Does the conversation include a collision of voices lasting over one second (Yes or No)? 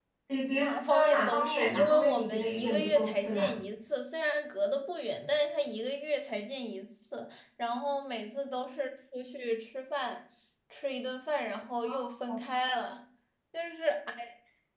Yes